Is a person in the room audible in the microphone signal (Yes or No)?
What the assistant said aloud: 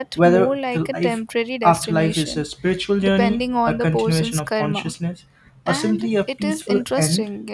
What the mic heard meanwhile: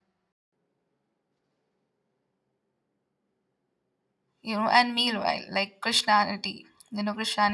Yes